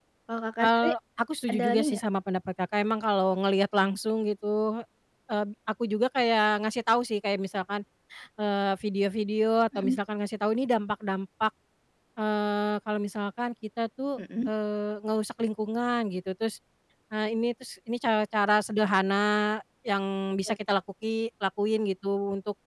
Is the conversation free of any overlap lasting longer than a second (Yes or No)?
Yes